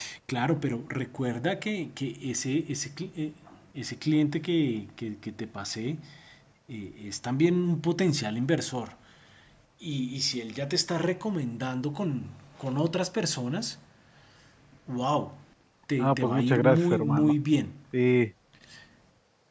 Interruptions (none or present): present